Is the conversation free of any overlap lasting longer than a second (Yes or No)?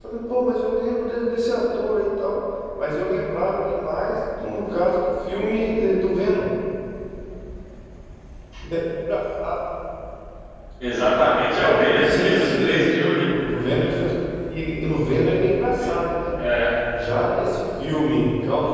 No